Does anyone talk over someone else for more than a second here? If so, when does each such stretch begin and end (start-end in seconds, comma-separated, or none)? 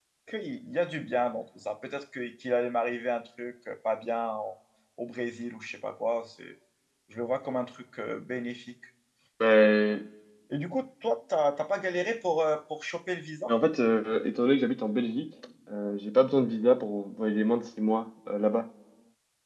none